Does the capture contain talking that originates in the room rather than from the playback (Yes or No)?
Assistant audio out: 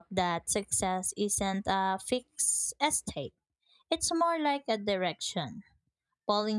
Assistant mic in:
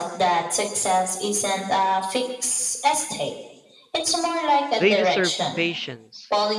Yes